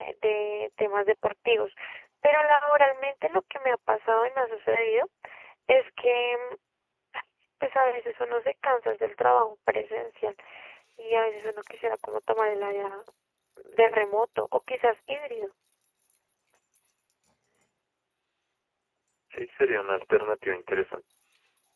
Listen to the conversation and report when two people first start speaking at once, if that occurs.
none

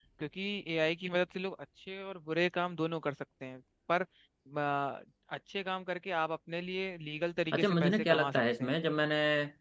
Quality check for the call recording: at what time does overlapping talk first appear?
7.5 s

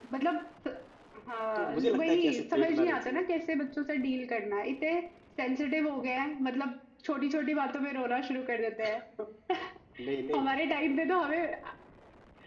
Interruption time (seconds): 1.6 s

